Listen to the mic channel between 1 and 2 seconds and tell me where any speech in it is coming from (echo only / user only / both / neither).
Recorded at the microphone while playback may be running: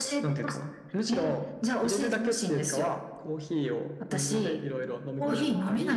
echo only